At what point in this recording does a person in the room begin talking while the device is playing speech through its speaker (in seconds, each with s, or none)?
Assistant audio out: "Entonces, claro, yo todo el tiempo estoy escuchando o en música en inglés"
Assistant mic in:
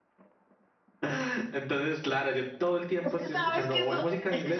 3.0 s